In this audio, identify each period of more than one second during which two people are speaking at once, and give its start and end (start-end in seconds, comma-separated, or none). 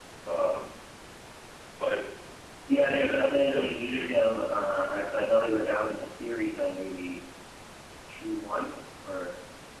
2.8-4.2